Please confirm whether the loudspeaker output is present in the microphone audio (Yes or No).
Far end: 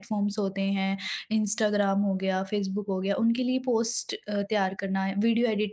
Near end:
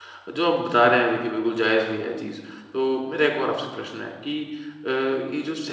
No